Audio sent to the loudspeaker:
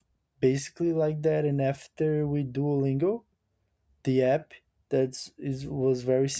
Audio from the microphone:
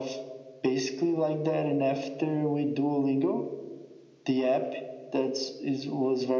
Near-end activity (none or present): none